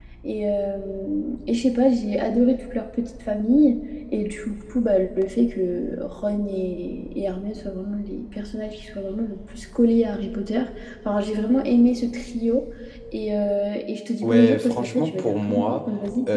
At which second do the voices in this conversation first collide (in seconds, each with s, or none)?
14.2 s